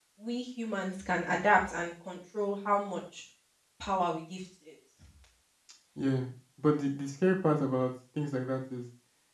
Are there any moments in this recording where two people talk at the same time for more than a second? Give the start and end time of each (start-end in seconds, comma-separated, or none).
none